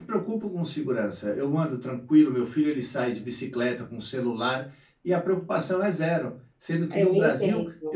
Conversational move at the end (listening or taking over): listening